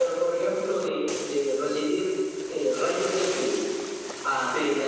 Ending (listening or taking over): listening